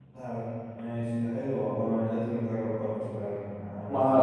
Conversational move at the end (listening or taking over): listening